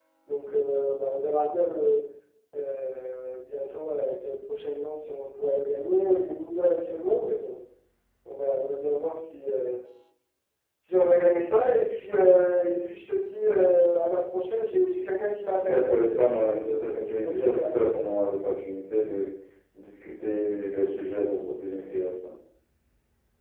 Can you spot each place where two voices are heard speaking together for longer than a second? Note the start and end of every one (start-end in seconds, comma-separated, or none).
15.6-17.9